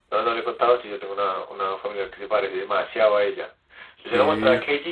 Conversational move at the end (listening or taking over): listening